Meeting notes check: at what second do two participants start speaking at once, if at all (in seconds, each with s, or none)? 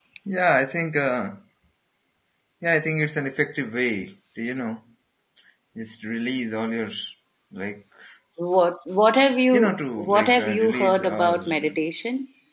9.5 s